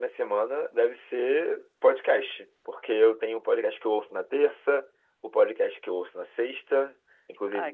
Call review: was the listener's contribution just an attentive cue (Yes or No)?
Yes